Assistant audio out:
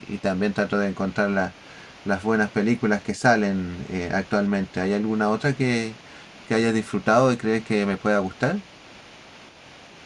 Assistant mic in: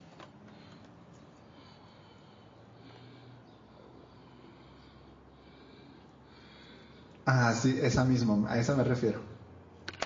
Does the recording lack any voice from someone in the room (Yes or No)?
No